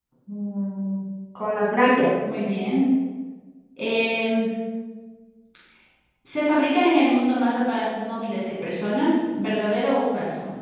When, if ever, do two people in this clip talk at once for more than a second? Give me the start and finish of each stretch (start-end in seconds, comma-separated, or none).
none